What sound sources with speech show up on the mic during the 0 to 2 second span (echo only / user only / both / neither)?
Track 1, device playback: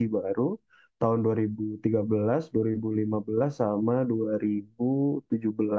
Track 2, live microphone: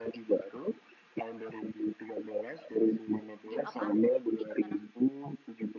echo only